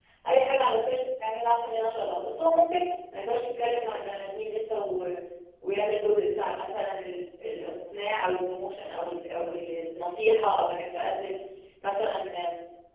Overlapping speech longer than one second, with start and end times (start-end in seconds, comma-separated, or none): none